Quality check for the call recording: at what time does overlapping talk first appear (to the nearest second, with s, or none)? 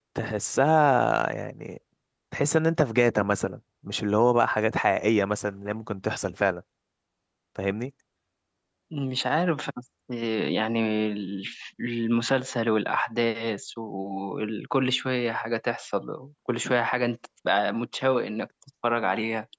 none